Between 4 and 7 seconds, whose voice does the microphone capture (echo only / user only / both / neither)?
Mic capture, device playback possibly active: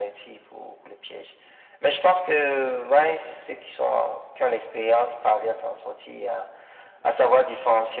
echo only